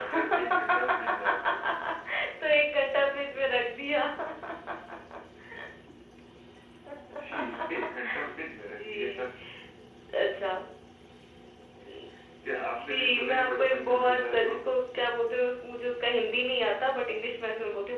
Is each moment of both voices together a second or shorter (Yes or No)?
No